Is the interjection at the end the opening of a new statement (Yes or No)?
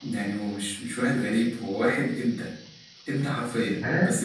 No